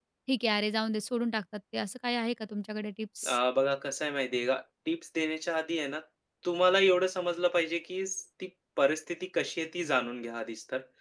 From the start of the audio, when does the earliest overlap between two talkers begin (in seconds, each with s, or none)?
none